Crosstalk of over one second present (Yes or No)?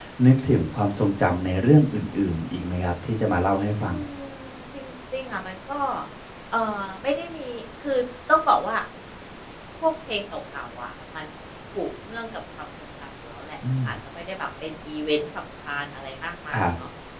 No